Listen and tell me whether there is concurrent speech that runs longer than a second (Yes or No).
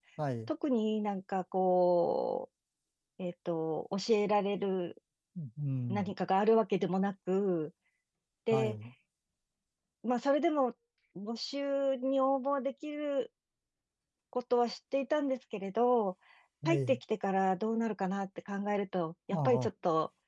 No